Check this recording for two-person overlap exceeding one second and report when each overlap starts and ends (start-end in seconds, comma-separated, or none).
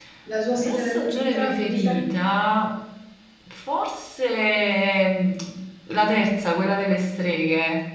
0.5-2.0